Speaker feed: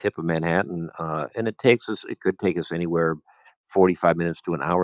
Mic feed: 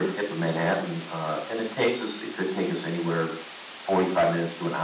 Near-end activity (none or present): none